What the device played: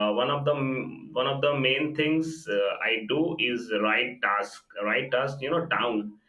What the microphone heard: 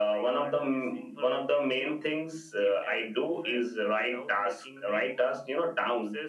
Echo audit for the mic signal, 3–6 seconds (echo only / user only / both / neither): both